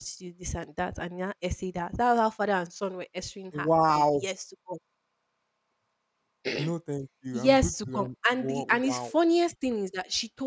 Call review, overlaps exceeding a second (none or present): present